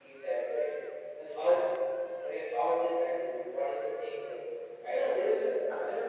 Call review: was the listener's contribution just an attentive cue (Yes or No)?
No